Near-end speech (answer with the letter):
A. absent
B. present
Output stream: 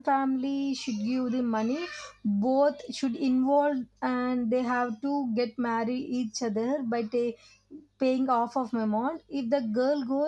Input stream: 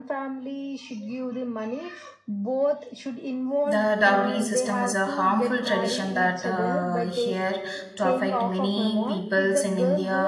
B